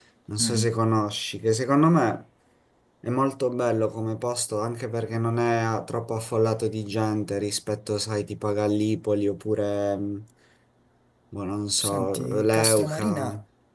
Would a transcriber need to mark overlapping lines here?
Yes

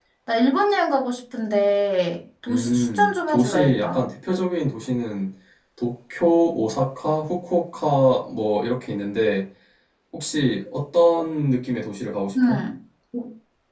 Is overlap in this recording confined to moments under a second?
No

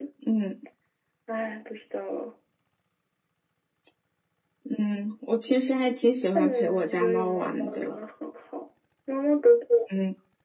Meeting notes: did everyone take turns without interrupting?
No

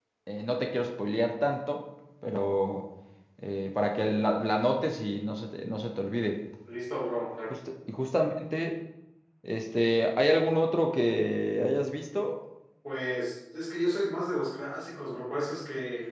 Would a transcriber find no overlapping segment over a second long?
Yes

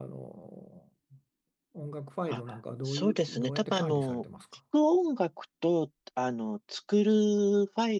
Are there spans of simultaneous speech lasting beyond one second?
Yes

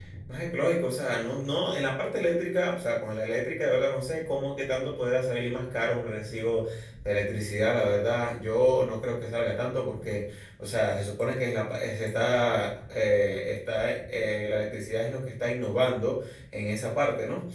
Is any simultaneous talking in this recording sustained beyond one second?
No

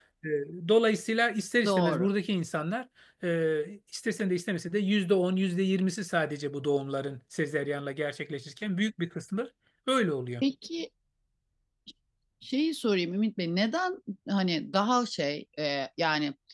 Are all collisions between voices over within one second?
Yes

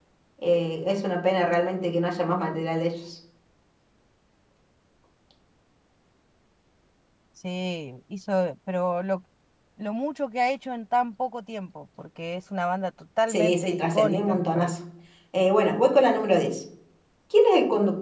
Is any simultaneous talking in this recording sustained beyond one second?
Yes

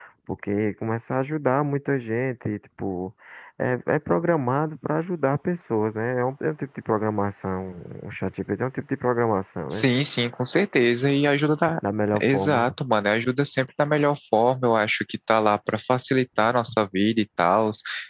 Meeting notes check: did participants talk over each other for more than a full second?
No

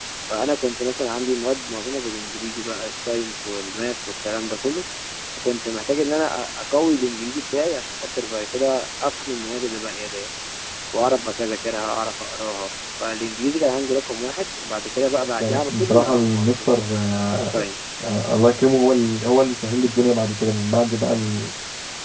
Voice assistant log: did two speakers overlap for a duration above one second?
Yes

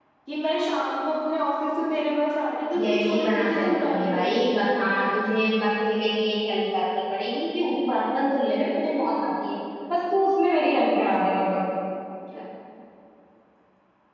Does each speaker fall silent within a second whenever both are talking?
No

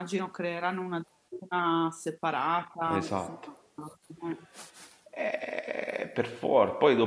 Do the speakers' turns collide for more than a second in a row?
No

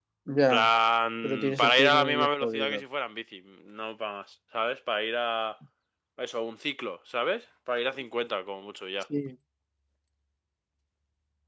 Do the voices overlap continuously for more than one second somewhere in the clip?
Yes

